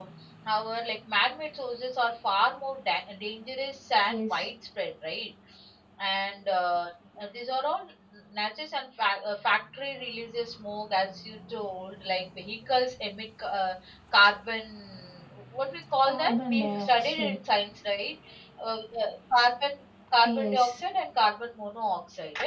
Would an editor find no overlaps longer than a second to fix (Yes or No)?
No